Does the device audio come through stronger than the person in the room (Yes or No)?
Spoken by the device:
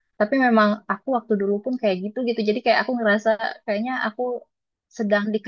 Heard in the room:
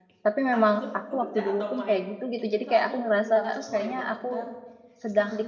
Yes